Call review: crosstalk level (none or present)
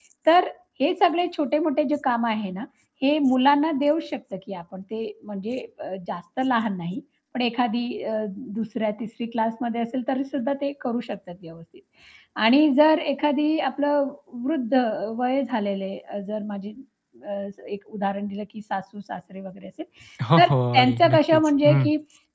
present